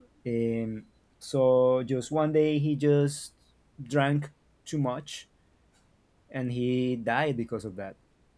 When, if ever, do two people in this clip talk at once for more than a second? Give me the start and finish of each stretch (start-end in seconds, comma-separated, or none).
none